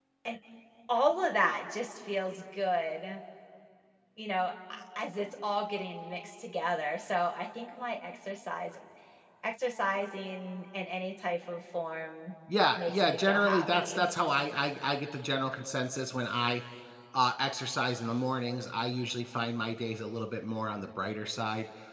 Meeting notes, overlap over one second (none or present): present